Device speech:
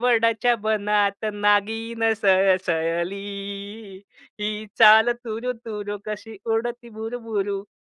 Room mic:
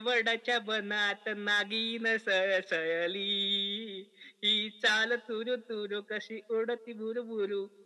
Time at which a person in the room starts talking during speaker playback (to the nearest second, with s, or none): none